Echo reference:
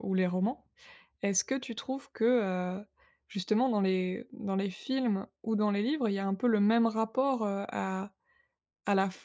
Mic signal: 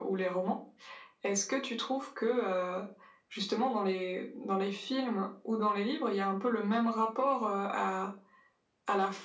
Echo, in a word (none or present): present